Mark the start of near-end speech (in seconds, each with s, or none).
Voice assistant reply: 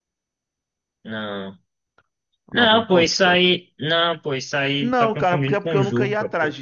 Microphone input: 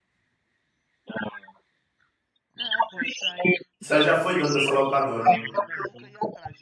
3.8 s